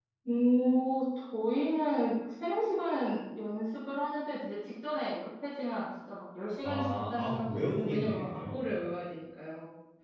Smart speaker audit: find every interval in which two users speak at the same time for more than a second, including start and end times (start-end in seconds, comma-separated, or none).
6.6-8.7